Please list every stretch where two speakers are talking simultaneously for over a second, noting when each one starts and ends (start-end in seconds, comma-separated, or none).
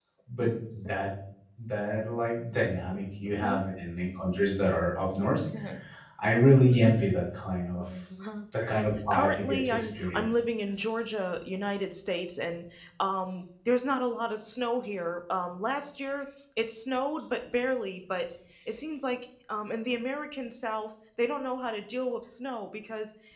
8.7-10.3